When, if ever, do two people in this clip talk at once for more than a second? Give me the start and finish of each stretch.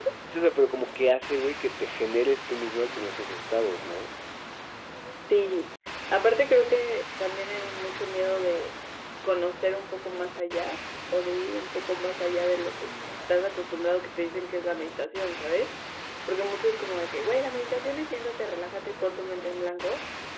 none

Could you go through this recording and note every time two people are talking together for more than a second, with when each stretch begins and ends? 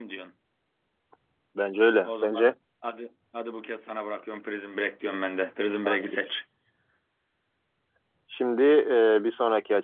none

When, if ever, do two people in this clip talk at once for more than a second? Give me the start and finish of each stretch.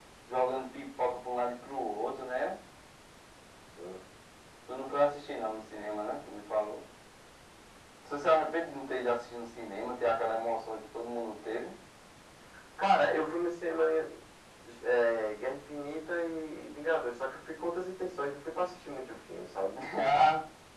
none

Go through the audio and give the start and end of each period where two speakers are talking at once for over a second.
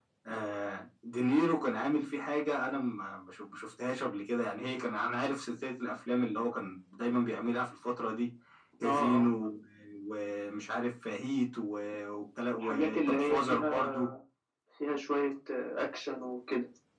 12.5-14.1

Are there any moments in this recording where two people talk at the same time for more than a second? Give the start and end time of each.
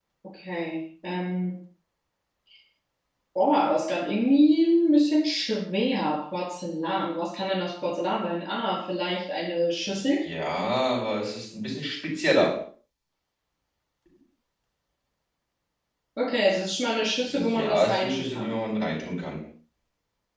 17.3-18.6

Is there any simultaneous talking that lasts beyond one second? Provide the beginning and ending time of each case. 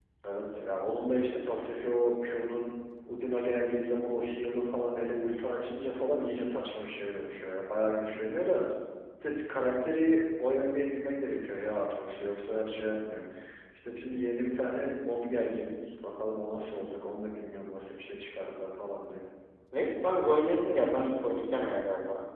none

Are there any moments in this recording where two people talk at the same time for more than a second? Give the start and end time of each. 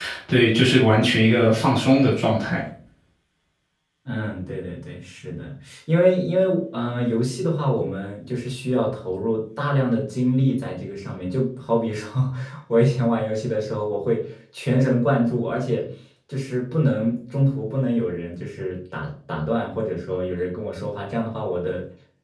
none

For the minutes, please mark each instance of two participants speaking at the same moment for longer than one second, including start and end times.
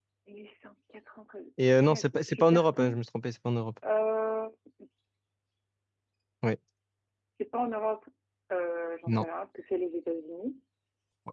1.6-3.0

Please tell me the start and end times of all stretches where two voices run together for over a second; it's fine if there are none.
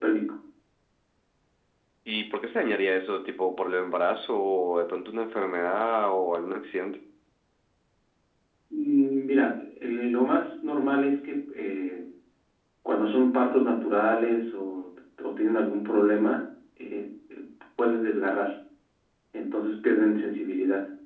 none

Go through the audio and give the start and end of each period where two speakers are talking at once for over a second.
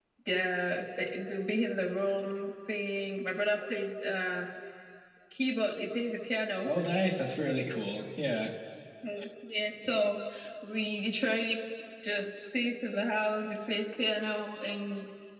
none

